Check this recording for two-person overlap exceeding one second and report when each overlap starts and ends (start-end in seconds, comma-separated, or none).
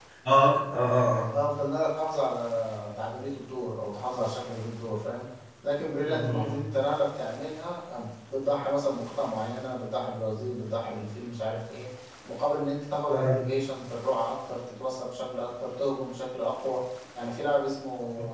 none